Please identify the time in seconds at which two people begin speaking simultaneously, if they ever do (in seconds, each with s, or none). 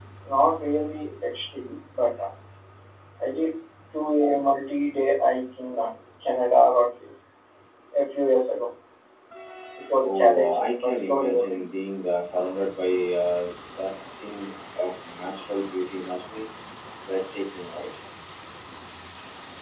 10.0 s